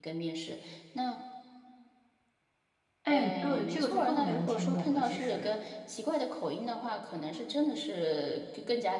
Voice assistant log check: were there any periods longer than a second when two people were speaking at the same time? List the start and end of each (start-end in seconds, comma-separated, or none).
3.1-5.5